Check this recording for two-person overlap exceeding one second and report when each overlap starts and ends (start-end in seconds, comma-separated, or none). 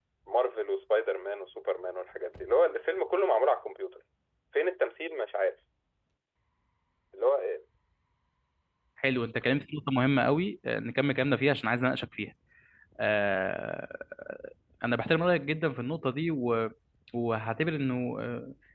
none